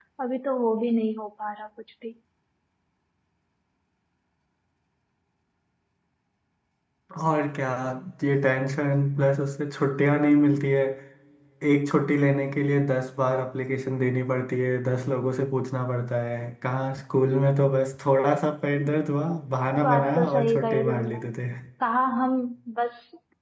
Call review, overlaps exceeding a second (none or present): present